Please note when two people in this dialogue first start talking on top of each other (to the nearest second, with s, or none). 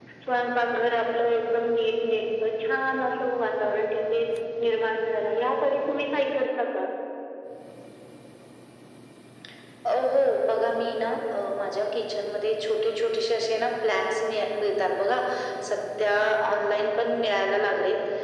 none